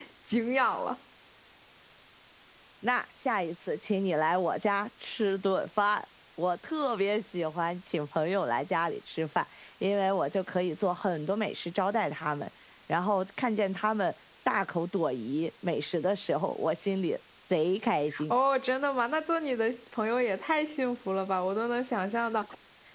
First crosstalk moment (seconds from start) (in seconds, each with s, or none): none